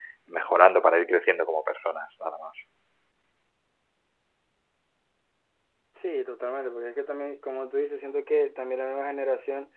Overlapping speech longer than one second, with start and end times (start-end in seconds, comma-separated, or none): none